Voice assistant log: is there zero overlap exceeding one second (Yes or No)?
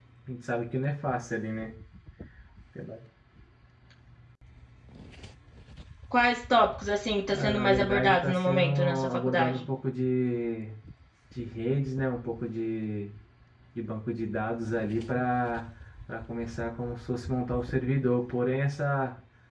No